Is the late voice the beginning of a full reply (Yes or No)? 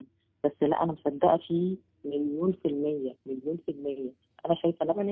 No